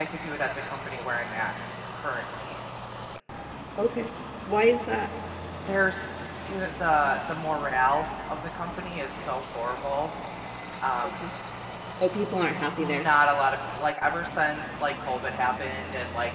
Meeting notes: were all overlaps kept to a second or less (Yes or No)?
Yes